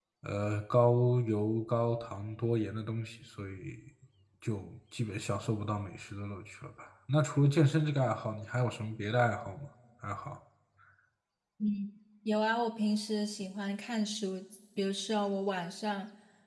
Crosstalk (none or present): none